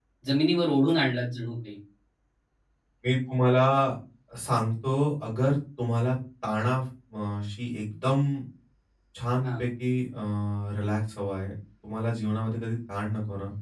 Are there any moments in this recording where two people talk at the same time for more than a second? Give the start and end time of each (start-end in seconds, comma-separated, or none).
none